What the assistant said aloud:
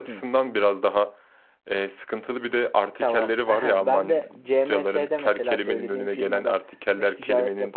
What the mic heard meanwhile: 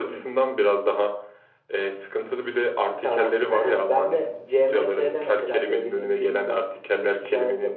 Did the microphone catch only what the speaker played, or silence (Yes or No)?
Yes